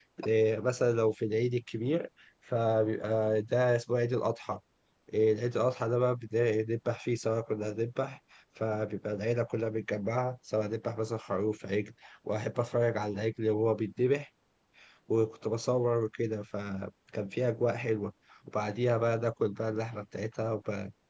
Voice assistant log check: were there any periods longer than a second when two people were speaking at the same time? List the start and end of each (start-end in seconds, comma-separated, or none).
none